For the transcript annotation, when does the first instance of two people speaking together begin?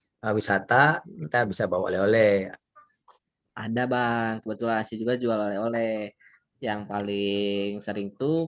none

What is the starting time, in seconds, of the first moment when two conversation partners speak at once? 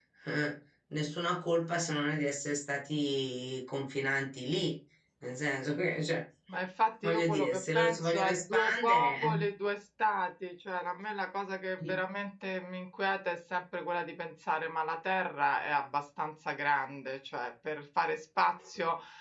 7.0 s

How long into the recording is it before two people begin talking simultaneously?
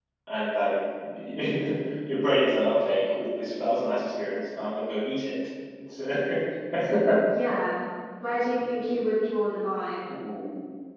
none

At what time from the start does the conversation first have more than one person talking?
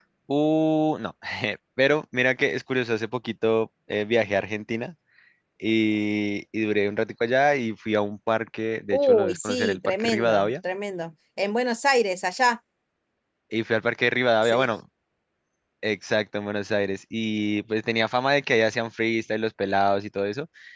8.9 s

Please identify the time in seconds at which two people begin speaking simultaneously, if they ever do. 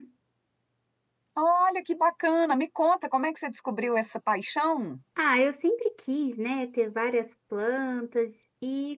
none

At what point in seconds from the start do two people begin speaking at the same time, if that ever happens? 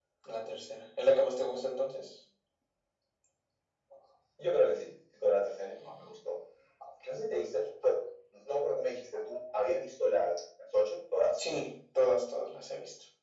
none

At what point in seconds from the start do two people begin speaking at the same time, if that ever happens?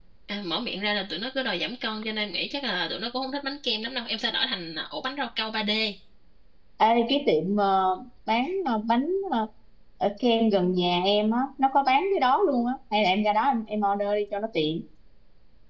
none

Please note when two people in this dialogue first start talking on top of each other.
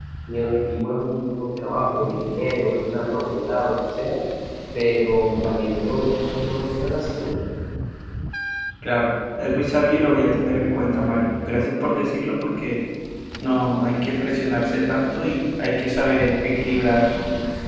none

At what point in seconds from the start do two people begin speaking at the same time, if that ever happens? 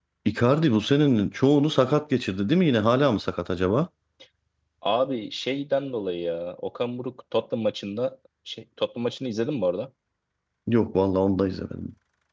none

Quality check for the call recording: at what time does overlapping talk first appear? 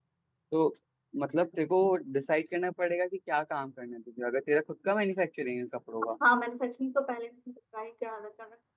none

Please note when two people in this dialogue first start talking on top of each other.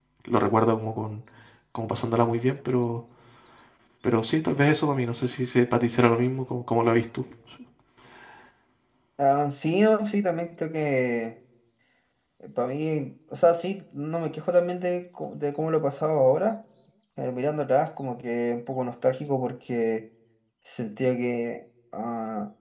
none

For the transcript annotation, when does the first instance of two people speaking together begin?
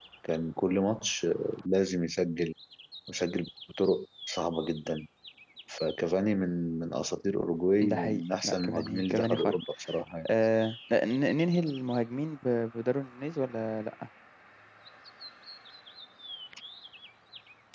7.8 s

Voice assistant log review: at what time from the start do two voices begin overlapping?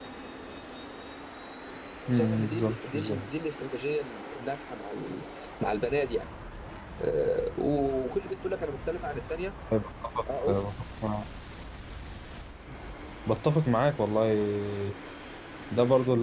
2.1 s

